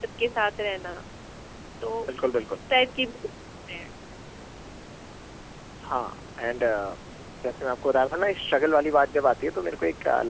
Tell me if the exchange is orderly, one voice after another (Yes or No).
Yes